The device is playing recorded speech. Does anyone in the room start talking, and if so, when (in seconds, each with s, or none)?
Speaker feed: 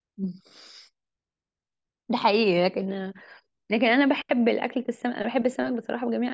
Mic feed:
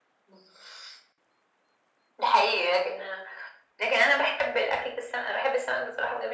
none